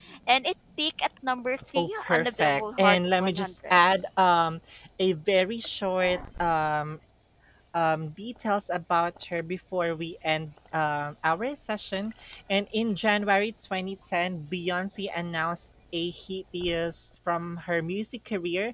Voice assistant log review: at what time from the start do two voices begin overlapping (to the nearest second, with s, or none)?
2 s